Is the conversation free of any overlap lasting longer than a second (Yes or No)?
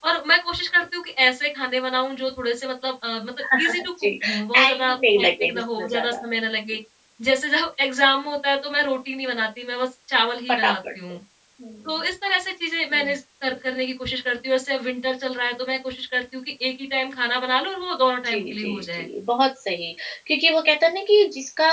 No